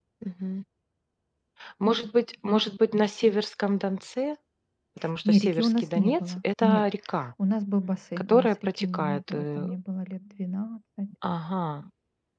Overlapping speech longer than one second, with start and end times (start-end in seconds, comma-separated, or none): 5.2-6.8, 8.3-9.7